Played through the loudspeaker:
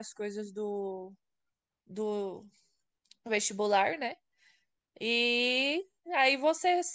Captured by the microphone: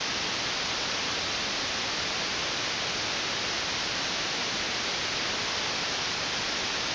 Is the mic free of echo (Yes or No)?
Yes